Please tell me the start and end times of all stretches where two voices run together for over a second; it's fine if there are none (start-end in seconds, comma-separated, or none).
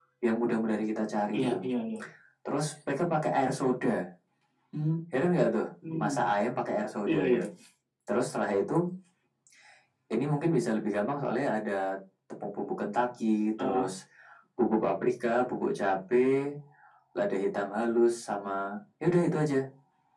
none